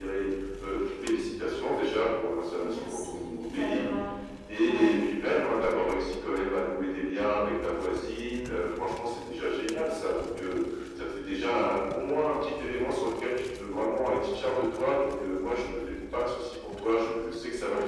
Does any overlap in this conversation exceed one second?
Yes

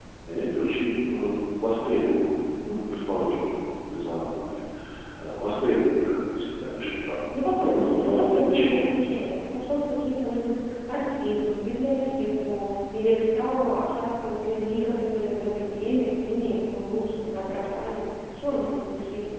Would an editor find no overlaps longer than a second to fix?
No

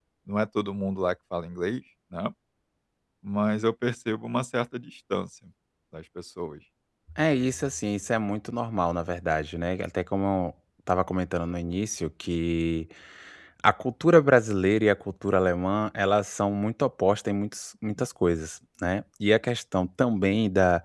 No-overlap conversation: Yes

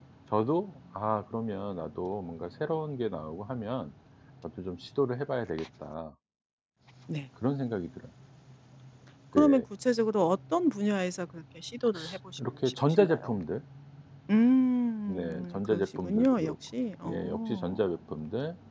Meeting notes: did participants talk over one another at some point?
Yes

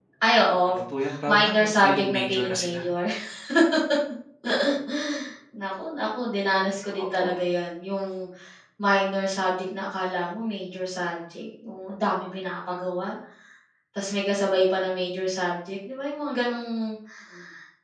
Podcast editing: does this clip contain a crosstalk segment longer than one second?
Yes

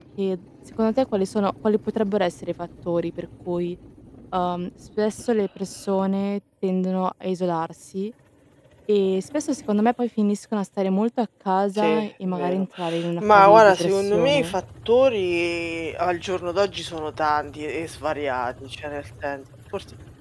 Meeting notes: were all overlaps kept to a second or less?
No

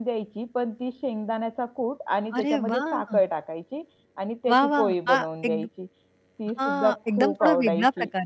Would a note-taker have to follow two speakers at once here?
Yes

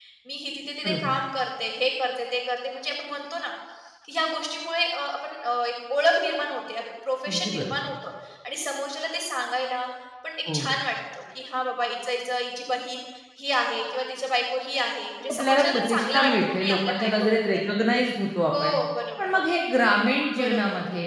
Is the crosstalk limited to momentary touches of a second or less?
No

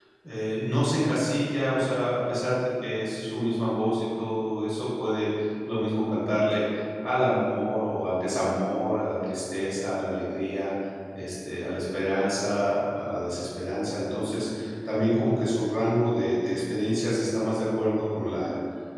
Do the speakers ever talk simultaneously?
No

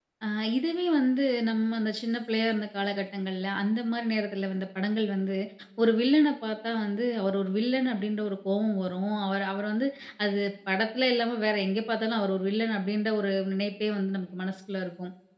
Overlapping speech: No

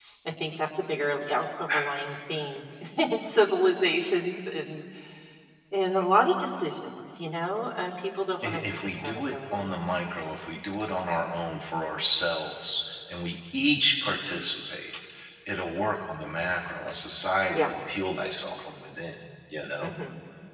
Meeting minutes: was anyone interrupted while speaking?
Yes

